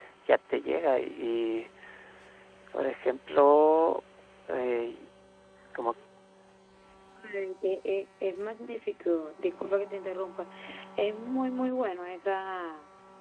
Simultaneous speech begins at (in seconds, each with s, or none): none